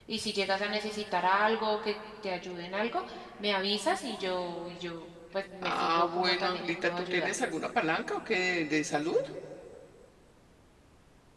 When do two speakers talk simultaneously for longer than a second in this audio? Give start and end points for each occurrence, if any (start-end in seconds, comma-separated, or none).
5.6-7.3